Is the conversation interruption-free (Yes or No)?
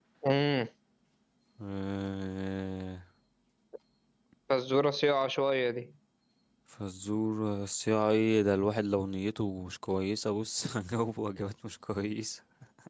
Yes